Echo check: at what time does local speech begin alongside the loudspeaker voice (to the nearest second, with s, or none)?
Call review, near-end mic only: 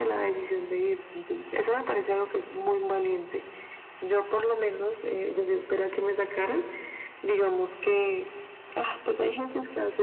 none